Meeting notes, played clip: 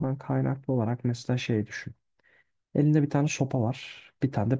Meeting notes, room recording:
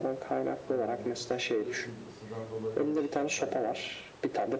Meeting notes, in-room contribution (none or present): present